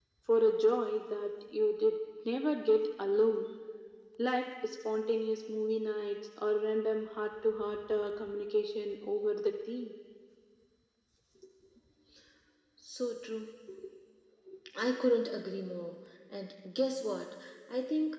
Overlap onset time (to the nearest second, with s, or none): none